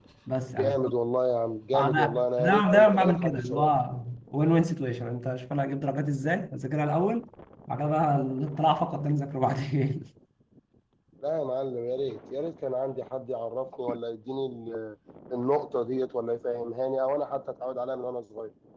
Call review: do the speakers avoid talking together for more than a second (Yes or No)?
No